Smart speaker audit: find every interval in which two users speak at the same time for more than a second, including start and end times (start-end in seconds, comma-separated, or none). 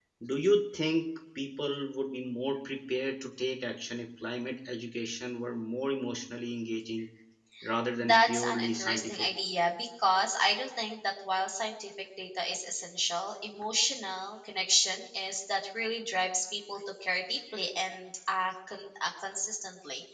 8.1-9.3